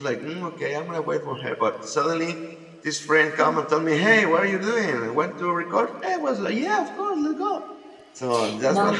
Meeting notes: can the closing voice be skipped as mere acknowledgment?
No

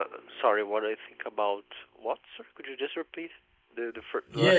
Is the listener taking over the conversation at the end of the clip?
Yes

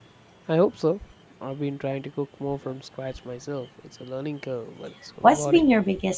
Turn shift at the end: Yes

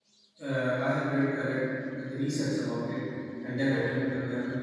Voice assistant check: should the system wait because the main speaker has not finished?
Yes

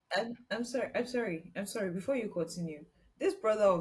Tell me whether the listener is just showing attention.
Yes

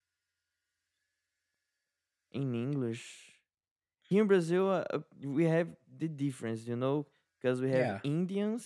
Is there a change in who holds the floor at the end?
No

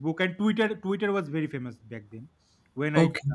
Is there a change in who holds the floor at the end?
No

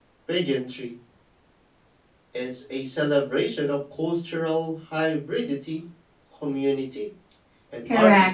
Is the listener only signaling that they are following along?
No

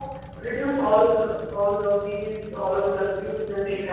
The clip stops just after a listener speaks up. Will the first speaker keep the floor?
Yes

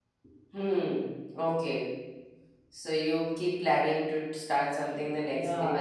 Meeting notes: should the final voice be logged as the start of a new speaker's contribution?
Yes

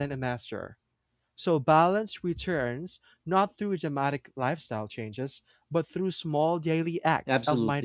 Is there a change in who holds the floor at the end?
Yes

